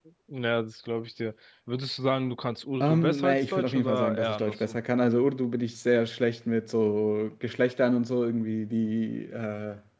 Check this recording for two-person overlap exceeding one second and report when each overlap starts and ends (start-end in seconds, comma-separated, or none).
2.8-4.8